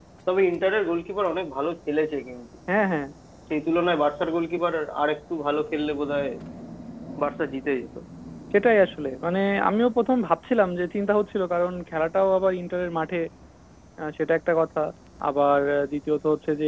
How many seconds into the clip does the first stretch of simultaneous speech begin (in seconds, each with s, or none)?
none